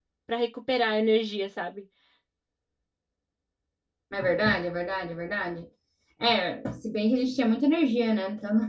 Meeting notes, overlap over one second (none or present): none